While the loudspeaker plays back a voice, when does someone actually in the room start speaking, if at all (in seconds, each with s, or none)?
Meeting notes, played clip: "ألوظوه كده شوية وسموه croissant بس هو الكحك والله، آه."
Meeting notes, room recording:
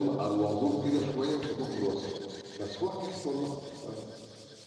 none